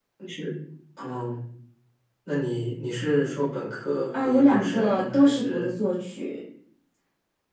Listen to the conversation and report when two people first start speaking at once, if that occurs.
4.1 s

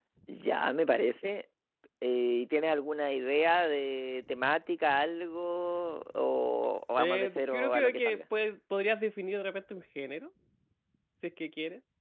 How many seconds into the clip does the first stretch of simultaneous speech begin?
7.0 s

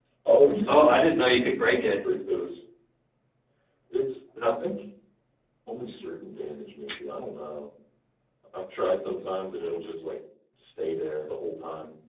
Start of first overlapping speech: 0.7 s

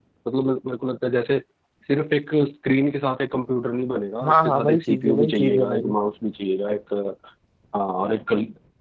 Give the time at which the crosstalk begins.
4.2 s

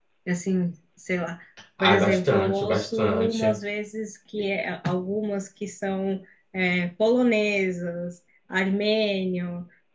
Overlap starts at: 1.8 s

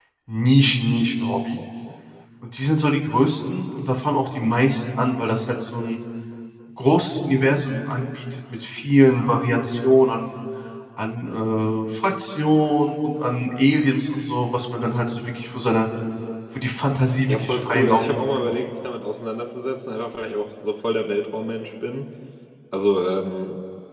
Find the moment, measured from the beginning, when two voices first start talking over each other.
17.3 s

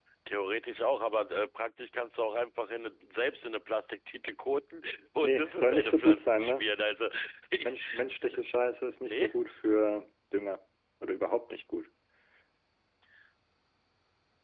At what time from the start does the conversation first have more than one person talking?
5.2 s

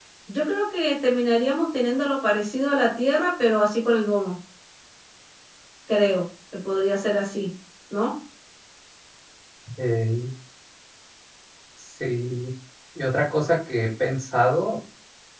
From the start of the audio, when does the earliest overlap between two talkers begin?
none

